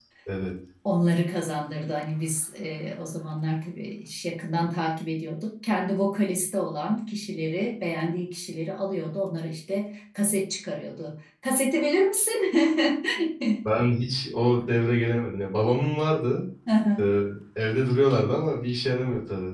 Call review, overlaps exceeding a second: none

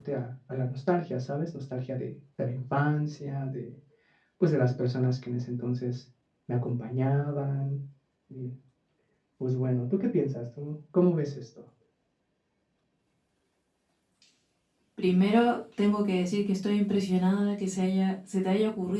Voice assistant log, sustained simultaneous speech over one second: none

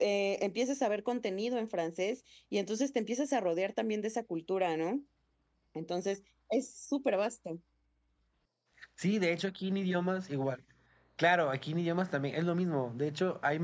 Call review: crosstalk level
none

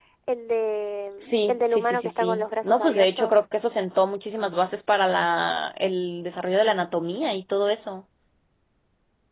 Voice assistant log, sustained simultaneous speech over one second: present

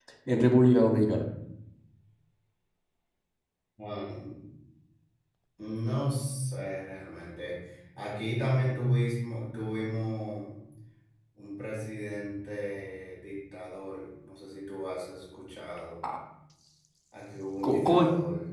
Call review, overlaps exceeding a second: none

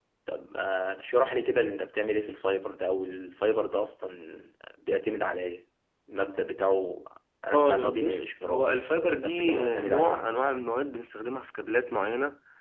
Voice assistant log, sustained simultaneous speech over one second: present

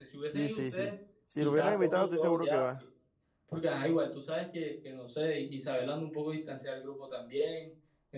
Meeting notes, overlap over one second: present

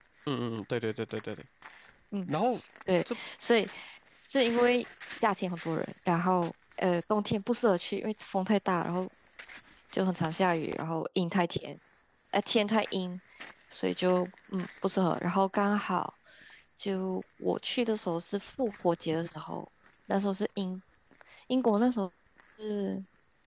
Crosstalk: none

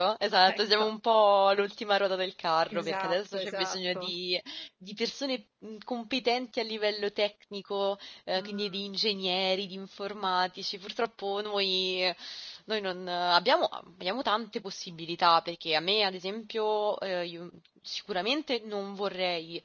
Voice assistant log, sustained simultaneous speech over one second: present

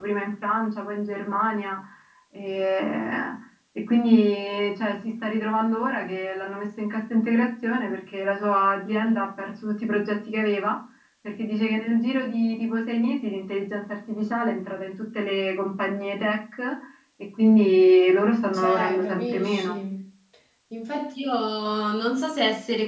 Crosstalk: present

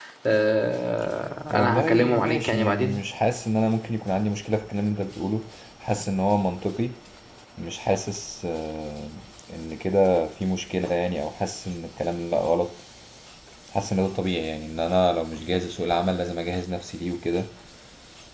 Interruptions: present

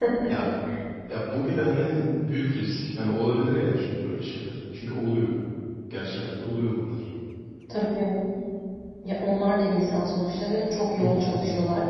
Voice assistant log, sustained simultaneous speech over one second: none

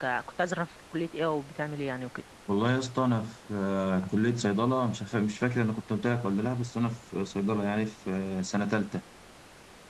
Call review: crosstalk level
none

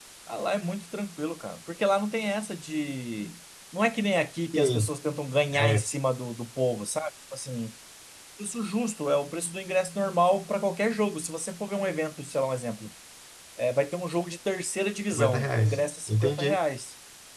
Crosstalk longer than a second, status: present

